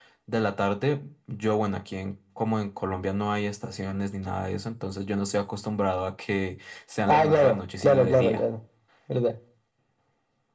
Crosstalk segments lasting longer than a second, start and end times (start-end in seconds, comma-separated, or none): 7.1-8.4